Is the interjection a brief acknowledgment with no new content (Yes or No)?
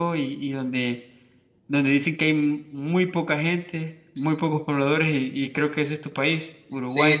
No